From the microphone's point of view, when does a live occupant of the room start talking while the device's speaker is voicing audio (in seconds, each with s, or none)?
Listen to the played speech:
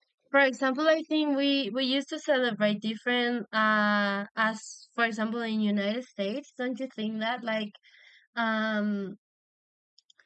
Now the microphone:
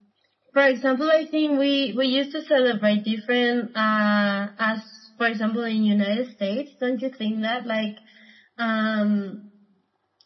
none